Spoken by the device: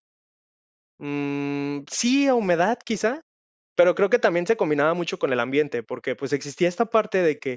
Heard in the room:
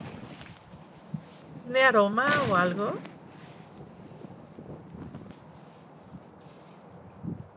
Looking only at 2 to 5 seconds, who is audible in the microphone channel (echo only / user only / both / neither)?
user only